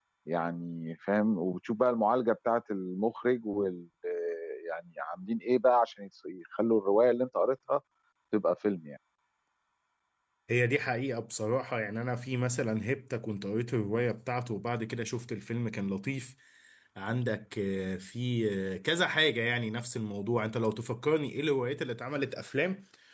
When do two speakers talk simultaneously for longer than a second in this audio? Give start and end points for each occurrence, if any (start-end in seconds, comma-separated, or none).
none